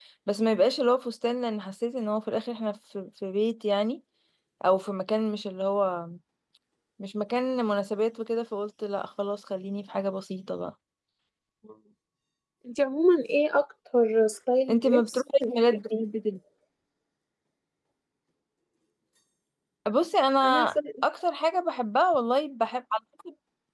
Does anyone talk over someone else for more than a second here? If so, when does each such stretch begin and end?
14.7-16.0

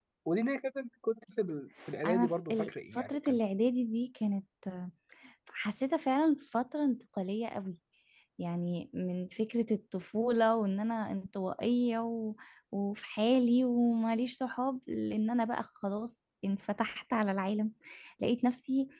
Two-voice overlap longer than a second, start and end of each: 2.1-3.4

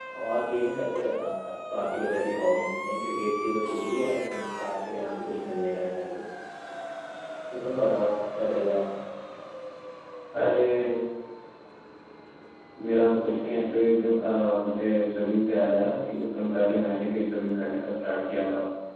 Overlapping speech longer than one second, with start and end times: none

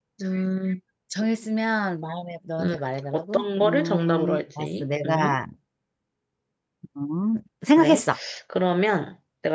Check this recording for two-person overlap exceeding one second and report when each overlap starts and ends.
3.1-5.4

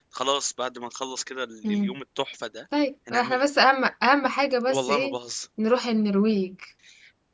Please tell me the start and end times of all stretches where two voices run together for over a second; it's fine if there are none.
none

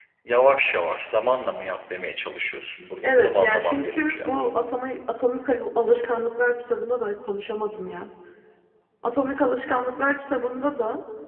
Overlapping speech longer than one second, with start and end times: 3.0-4.3

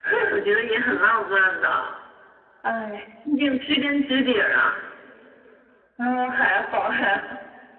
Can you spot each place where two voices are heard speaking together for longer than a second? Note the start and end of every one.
none

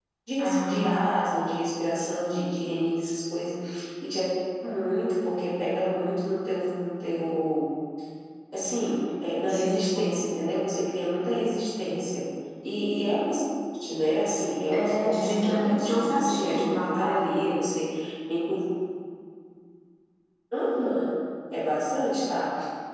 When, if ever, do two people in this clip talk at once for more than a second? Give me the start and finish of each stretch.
14.7-17.2

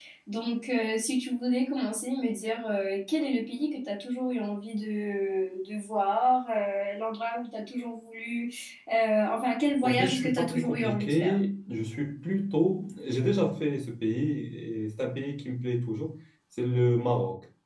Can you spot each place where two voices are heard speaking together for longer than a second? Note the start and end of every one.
9.8-11.4

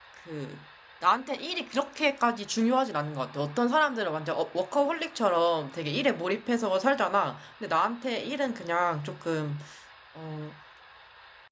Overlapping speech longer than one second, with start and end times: none

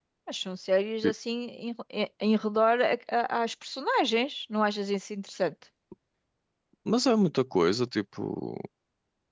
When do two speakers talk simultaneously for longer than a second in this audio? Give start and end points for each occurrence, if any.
none

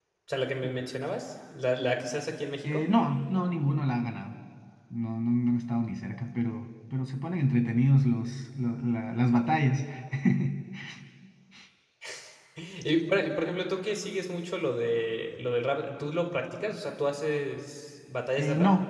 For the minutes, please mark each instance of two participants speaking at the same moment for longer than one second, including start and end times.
none

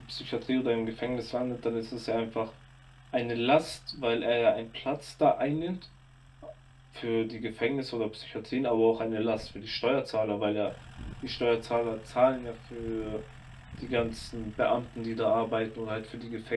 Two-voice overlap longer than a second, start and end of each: none

